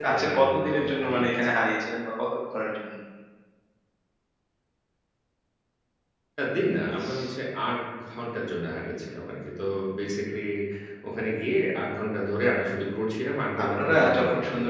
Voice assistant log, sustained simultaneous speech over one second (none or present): present